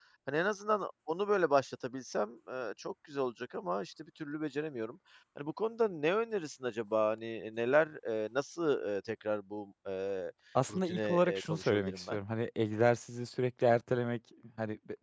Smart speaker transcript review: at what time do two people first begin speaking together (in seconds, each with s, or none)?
10.7 s